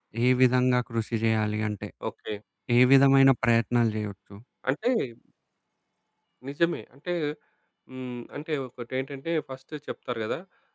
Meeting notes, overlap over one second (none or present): none